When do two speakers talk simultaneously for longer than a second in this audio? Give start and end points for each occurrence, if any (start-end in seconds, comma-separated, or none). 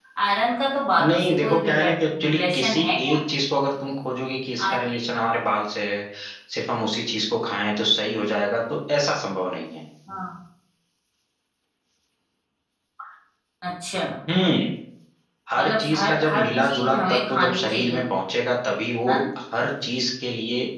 1.0-3.2, 15.6-18.0